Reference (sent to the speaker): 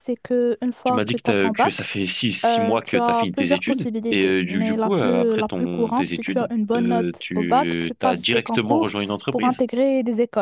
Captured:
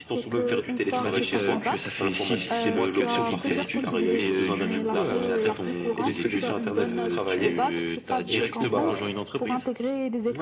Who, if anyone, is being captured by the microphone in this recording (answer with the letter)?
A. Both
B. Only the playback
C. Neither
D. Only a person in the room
A